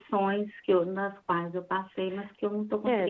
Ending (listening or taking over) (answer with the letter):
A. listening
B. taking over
B